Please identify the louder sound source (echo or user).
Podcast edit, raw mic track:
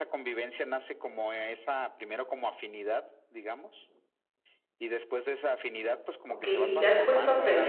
user